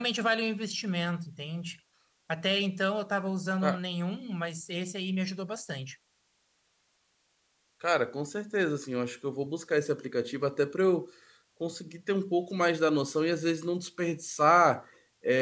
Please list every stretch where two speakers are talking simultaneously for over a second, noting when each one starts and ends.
none

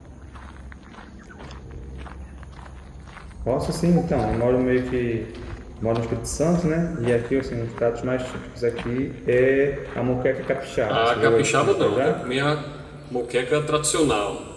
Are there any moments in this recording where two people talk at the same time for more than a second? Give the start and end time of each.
10.9-12.2

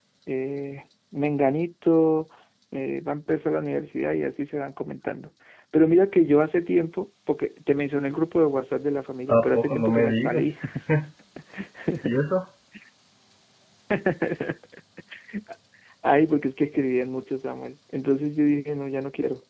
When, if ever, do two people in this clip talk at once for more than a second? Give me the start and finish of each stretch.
9.3-10.6

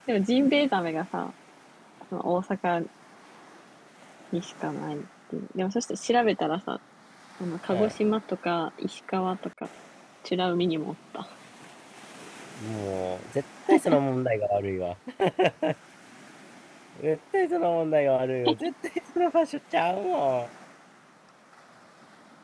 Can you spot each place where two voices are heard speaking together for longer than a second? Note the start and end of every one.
none

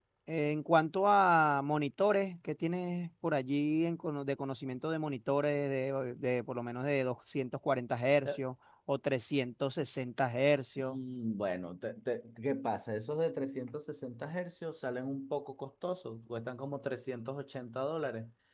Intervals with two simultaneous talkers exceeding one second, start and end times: none

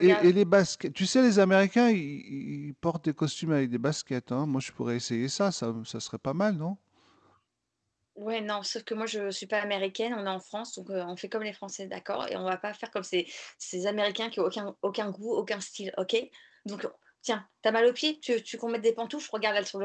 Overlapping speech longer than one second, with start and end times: none

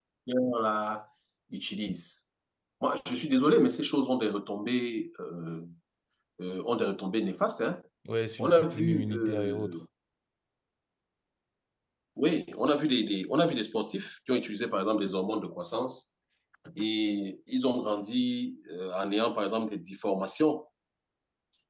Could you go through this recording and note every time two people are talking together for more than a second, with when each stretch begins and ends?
8.4-9.8

